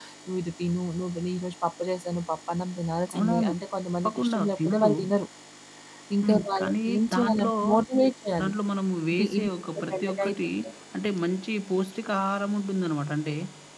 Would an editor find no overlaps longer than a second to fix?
No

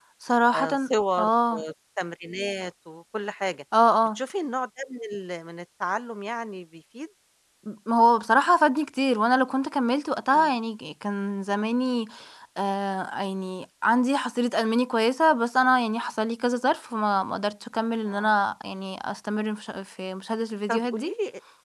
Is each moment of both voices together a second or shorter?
Yes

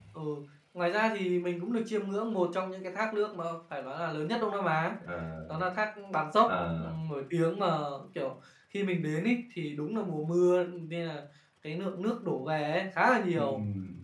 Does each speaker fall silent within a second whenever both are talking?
Yes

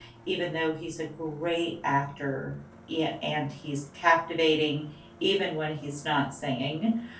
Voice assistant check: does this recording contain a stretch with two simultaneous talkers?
No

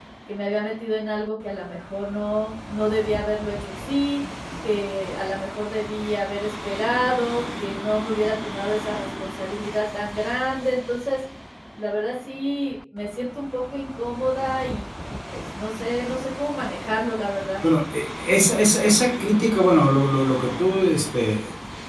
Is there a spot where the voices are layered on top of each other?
No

